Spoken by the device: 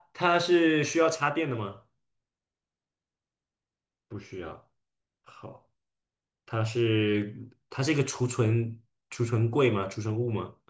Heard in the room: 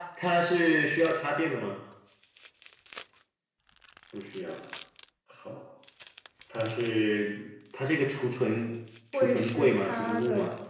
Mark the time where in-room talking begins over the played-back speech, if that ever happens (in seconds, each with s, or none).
9.1 s